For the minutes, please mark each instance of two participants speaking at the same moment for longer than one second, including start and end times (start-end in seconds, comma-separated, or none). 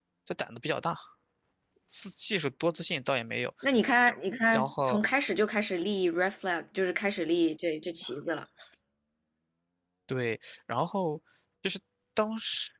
none